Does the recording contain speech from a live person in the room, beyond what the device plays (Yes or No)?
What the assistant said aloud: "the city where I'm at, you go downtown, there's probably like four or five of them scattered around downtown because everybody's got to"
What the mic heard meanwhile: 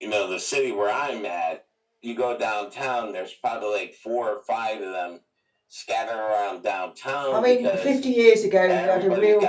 Yes